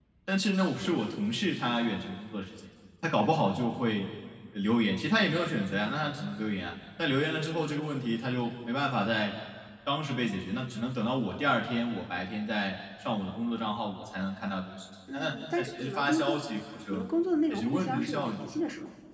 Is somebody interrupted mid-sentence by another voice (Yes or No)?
Yes